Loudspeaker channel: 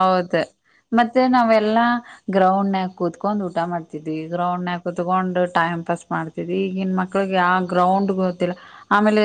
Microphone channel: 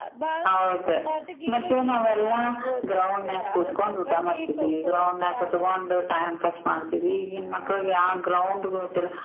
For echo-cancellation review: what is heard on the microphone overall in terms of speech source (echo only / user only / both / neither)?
both